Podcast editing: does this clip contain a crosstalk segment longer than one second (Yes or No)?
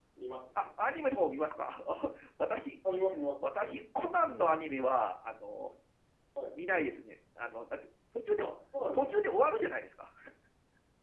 No